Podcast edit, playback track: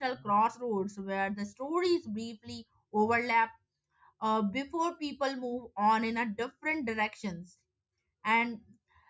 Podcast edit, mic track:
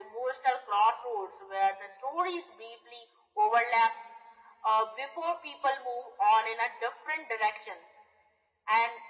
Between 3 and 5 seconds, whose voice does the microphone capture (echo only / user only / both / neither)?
echo only